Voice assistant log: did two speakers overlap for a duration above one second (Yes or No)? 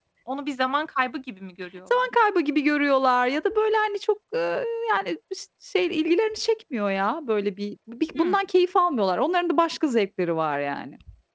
No